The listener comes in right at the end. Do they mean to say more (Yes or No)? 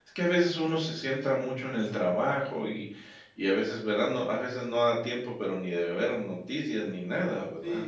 Yes